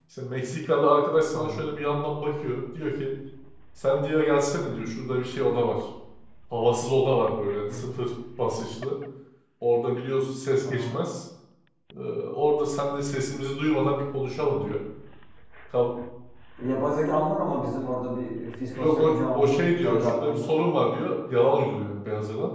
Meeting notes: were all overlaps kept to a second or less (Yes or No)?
No